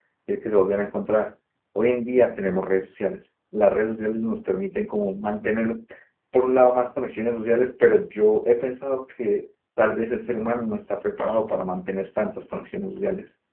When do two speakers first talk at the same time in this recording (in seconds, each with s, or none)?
none